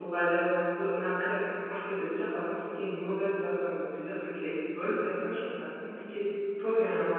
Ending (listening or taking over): listening